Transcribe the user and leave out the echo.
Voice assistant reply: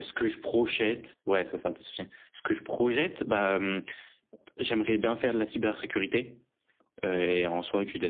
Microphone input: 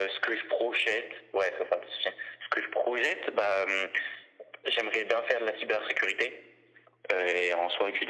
none

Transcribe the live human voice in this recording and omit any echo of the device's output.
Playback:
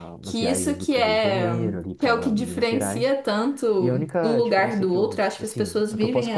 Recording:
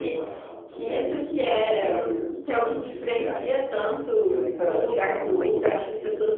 Eu não lembro.

